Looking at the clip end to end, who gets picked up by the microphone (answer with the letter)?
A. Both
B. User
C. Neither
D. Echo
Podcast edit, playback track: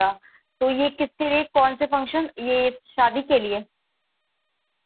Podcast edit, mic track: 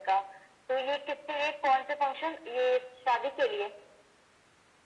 D